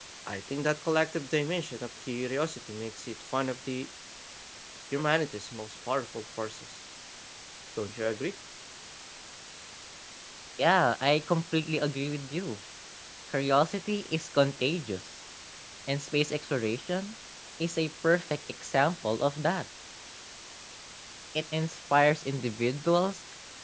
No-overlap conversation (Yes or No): Yes